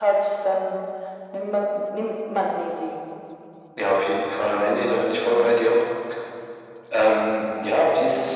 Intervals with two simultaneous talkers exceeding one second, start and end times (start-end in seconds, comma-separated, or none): none